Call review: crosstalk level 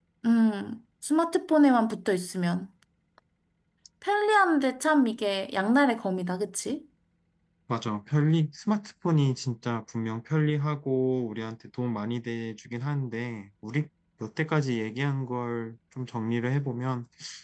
none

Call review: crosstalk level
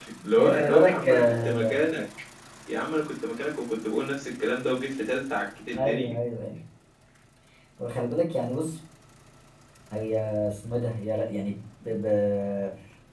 present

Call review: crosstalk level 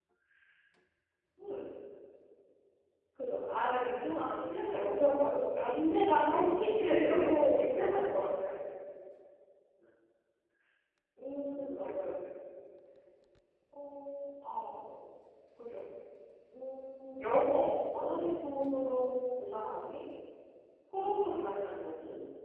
present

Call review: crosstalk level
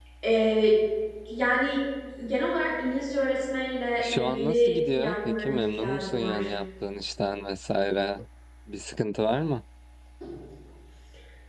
present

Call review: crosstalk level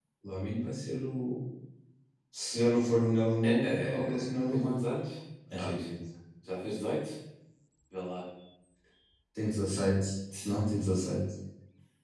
present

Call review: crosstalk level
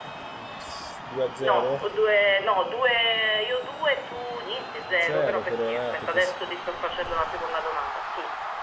present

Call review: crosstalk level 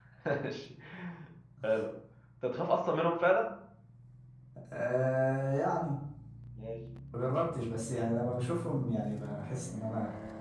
none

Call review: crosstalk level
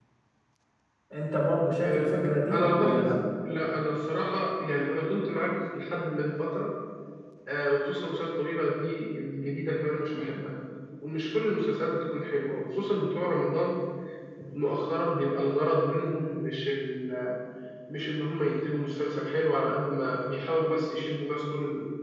present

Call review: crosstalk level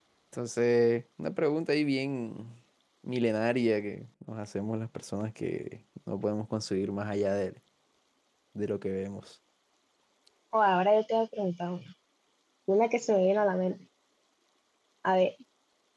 none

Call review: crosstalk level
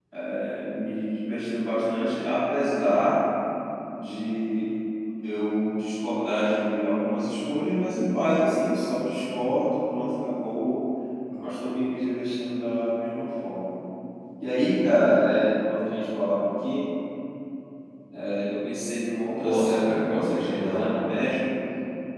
present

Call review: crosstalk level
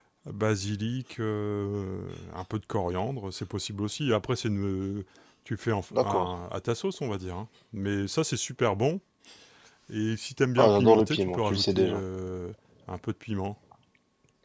present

